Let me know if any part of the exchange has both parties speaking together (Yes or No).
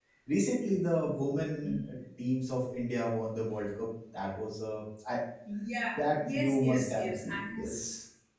Yes